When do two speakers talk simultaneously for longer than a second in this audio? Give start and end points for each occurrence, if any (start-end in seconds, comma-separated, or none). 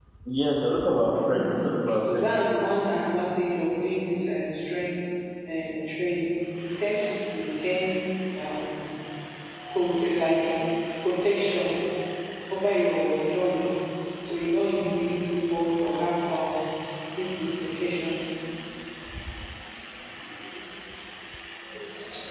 none